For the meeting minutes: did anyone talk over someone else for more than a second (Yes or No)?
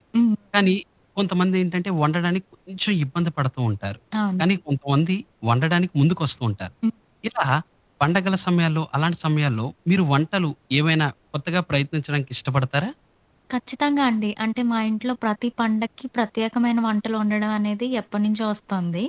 No